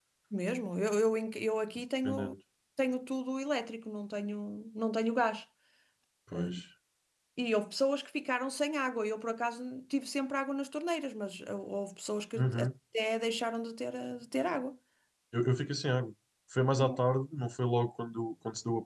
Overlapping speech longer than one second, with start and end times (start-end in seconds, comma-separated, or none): none